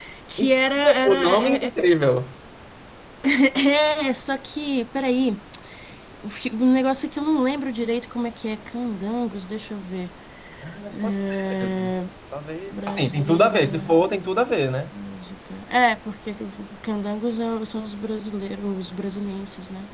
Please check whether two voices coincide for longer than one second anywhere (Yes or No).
Yes